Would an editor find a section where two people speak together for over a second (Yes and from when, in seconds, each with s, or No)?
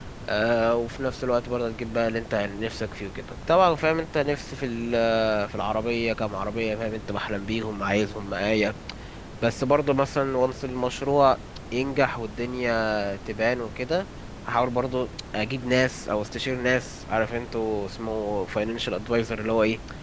No